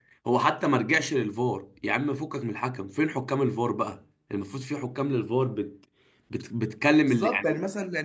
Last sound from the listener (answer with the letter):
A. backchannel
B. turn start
B